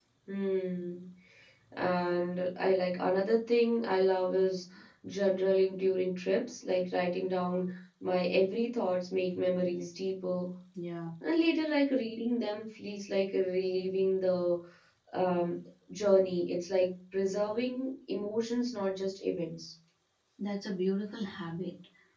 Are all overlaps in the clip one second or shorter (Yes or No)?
Yes